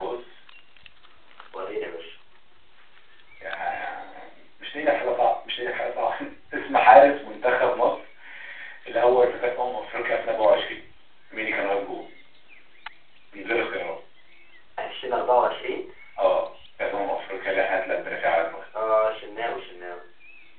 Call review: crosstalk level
none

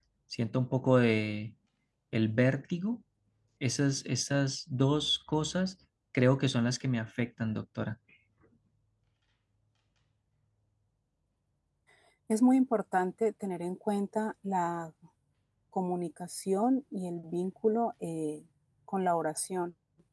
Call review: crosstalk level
none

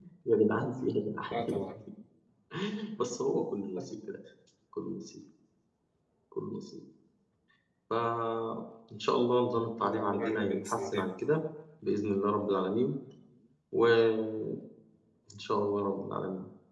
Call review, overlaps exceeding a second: present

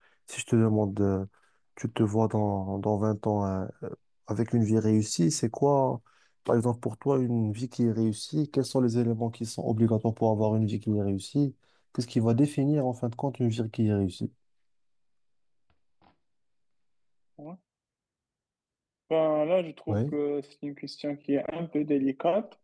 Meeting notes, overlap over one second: none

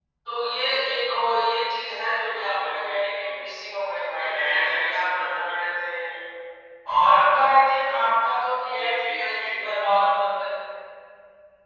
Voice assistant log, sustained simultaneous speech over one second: present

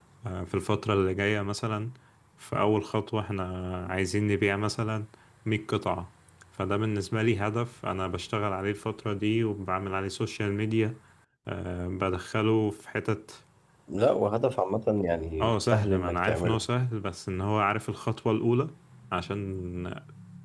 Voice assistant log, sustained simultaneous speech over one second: present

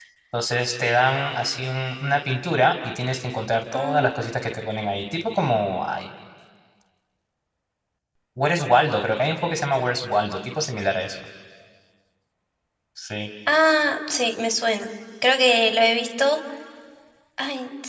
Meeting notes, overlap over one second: none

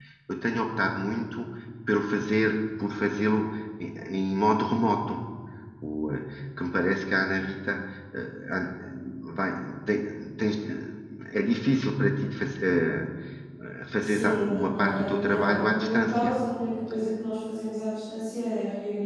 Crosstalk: present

